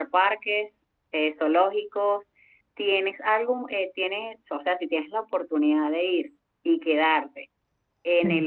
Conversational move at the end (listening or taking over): listening